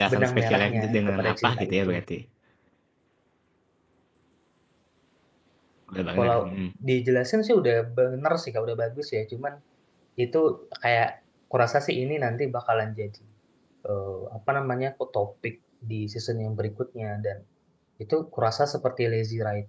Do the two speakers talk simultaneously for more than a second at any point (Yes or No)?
Yes